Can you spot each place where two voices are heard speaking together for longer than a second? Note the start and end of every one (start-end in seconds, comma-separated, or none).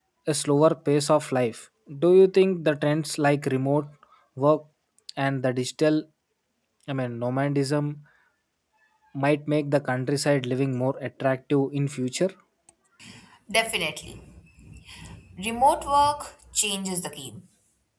none